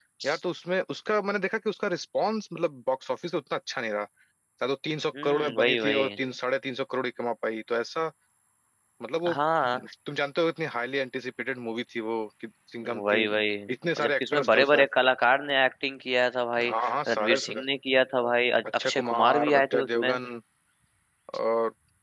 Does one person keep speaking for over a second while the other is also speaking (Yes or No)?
Yes